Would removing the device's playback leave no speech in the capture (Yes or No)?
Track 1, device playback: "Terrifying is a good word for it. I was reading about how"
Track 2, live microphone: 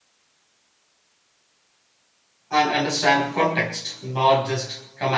No